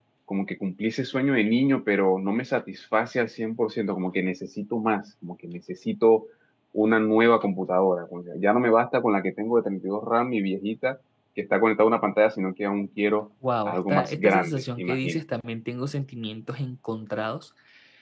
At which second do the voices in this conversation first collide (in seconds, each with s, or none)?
13.7 s